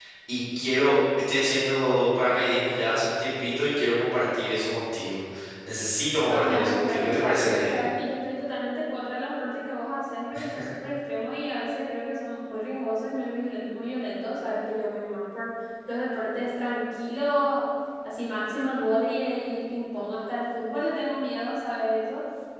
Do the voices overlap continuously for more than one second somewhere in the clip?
Yes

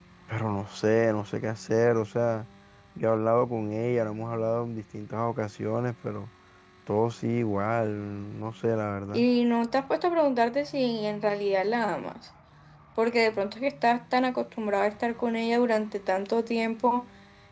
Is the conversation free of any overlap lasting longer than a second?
Yes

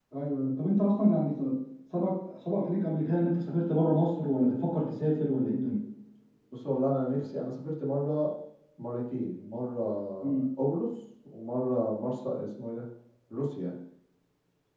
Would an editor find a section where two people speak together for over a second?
No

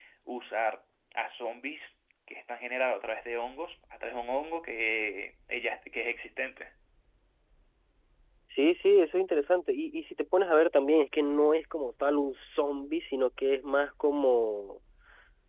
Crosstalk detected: No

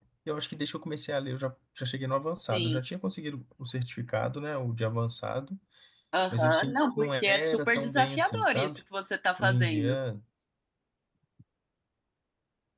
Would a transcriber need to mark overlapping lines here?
Yes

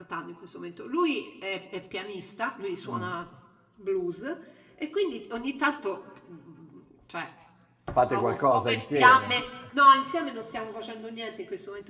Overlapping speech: Yes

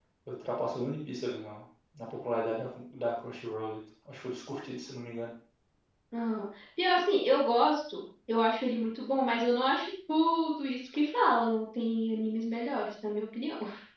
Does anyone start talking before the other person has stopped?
No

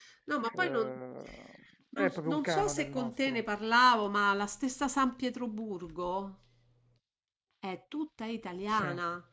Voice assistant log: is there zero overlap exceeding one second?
No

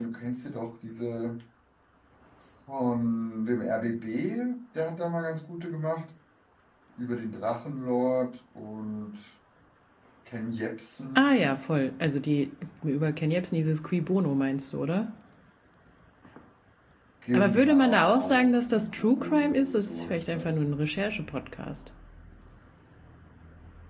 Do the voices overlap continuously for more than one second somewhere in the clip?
Yes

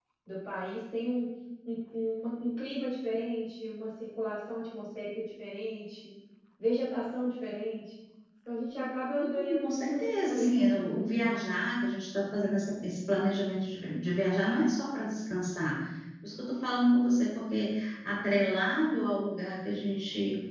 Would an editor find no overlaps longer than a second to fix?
No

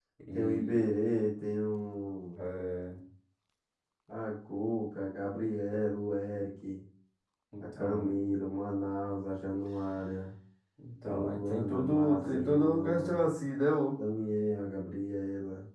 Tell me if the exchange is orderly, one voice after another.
No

